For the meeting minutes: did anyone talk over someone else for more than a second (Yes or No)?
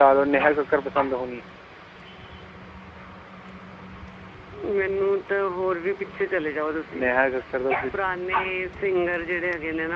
No